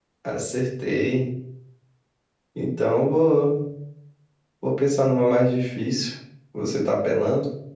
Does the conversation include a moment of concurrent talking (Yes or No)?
No